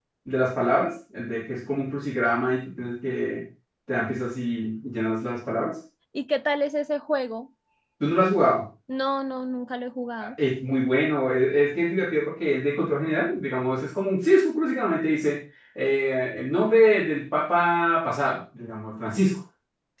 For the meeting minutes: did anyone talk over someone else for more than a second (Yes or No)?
No